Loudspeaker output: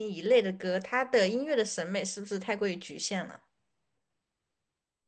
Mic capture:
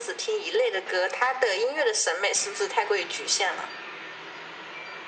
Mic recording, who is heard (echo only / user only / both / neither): echo only